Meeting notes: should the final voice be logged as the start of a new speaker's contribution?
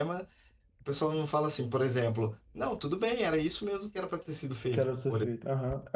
Yes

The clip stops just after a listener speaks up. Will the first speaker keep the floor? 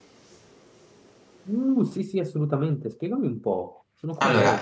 No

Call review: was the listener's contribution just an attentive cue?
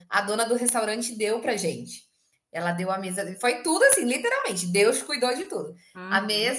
Yes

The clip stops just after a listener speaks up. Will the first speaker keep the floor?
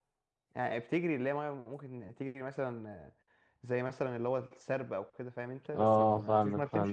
No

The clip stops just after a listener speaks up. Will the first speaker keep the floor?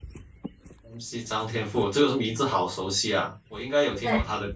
No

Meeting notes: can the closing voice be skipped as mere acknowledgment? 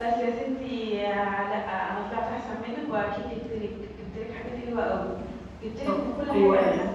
Yes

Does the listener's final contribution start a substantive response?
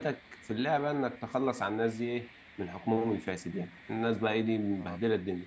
No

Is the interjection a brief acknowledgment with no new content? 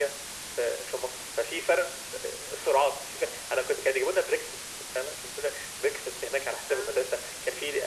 Yes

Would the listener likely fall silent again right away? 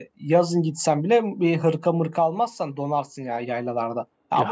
No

